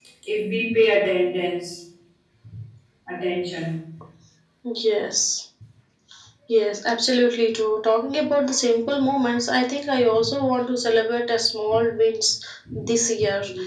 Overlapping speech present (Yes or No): No